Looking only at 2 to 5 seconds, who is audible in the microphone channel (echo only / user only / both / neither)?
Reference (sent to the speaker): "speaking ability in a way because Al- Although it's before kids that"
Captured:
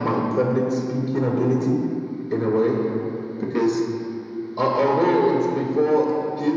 echo only